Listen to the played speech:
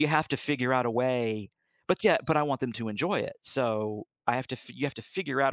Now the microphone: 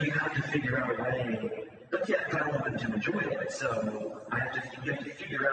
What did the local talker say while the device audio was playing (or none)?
none